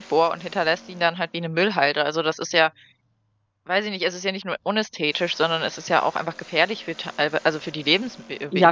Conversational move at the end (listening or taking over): taking over